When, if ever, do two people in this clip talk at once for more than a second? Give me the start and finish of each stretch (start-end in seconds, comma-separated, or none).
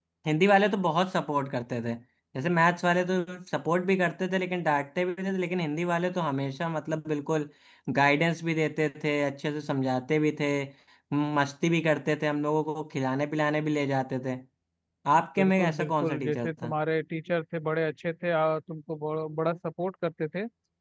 15.4-16.7